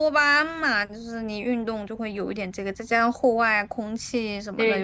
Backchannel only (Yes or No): No